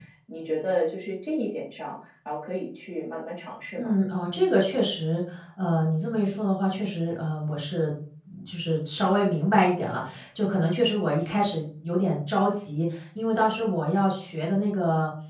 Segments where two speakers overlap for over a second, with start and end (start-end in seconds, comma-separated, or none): none